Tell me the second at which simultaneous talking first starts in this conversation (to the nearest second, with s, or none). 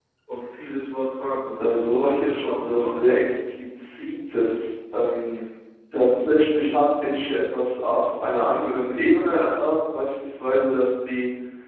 2 s